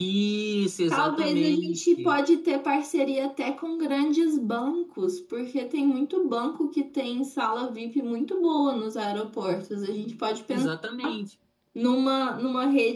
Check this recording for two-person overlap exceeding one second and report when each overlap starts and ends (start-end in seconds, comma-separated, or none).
0.9-2.1